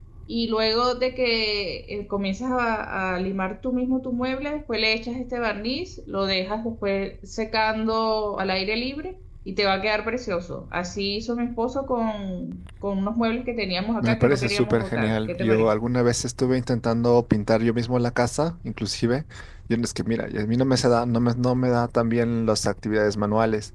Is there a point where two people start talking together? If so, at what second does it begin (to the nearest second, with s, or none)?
14 s